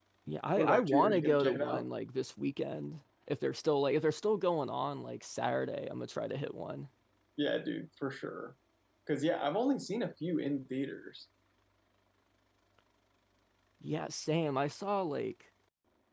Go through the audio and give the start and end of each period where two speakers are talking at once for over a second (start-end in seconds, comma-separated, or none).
0.6-1.9